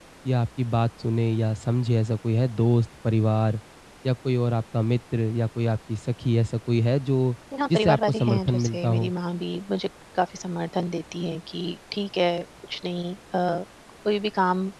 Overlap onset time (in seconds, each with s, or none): 7.5 s